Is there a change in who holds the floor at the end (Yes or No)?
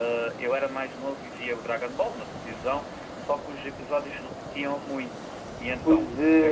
Yes